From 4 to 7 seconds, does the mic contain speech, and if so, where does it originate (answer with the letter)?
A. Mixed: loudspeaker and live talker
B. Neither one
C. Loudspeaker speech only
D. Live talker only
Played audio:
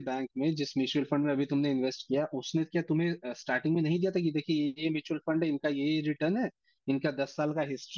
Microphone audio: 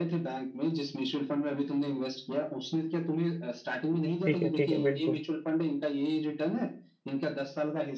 A